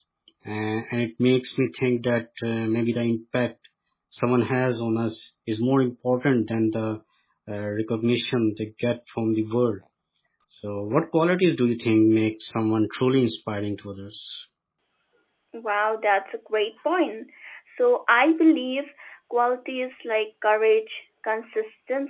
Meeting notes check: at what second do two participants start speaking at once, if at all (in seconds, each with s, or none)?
none